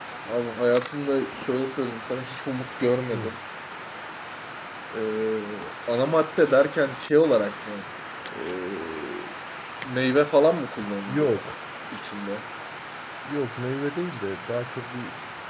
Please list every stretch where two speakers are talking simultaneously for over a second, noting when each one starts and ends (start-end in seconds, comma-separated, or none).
none